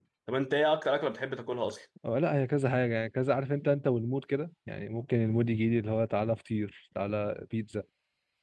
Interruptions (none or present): none